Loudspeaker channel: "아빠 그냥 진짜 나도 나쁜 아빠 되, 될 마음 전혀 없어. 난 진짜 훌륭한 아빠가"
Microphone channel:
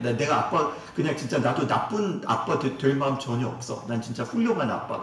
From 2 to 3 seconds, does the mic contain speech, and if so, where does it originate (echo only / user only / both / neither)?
echo only